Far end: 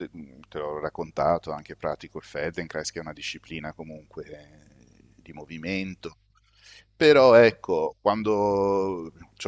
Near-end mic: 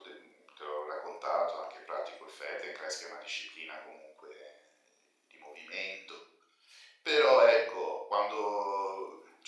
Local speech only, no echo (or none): none